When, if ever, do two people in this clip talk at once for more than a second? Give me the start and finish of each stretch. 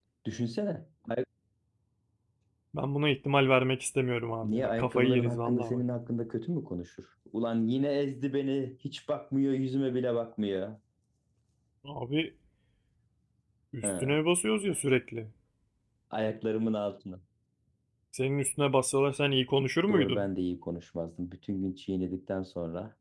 4.4-5.8

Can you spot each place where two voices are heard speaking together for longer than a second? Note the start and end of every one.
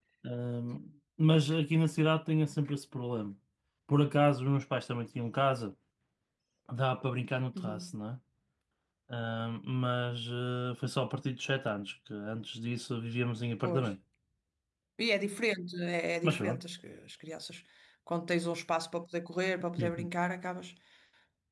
none

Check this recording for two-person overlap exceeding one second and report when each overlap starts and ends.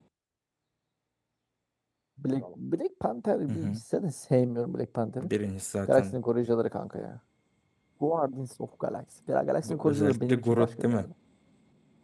9.6-11.1

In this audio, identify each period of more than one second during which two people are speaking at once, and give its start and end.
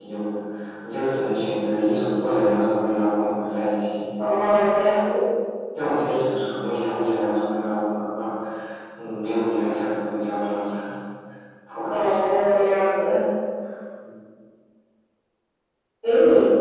none

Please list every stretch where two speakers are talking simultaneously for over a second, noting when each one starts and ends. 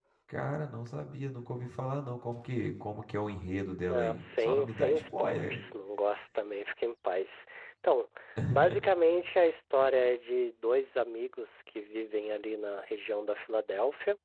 3.9-5.6

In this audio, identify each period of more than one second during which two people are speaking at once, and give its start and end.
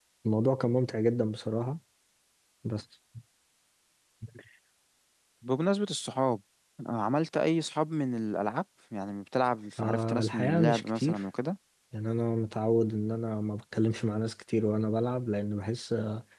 9.8-11.2

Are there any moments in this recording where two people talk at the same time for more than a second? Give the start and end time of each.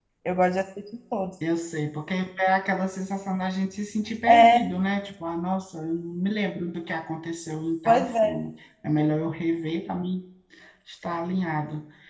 none

